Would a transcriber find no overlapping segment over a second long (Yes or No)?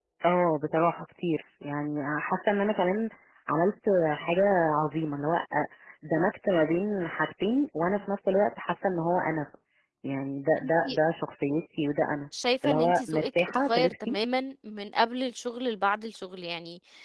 No